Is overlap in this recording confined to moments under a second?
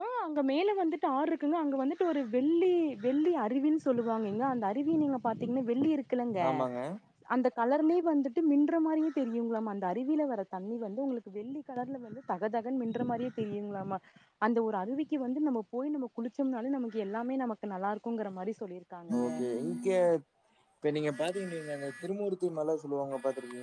Yes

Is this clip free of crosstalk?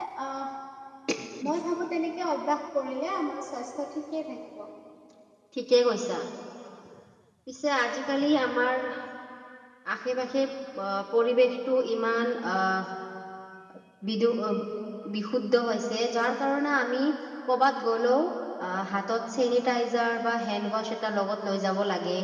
Yes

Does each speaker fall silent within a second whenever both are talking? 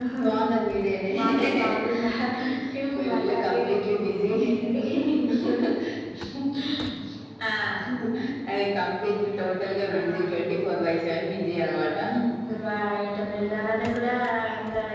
No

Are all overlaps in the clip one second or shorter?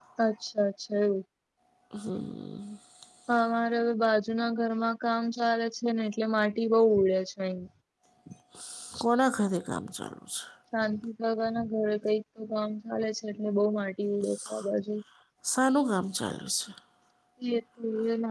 Yes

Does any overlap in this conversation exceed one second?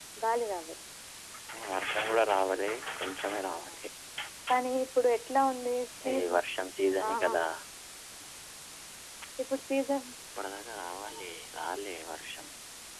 No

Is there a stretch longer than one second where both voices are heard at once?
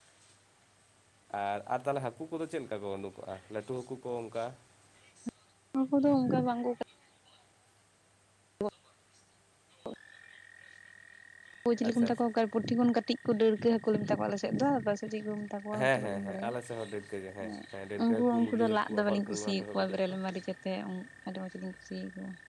Yes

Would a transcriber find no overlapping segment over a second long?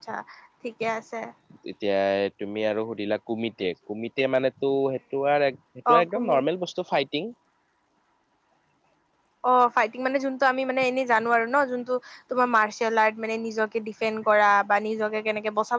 Yes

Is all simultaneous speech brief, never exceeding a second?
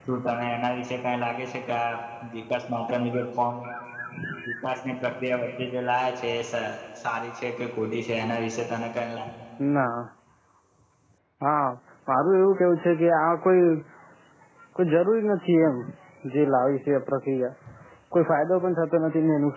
Yes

